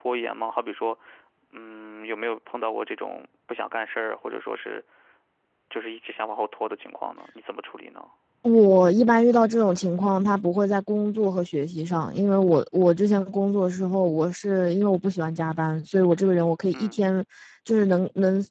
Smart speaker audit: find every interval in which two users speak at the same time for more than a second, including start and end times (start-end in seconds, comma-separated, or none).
none